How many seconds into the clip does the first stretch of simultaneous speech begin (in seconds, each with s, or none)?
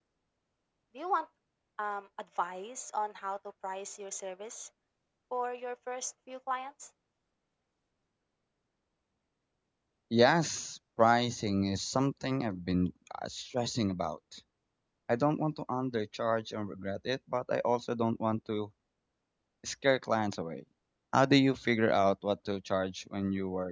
none